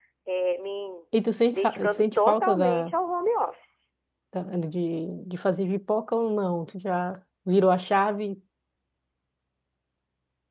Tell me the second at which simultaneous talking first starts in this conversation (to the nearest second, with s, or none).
2 s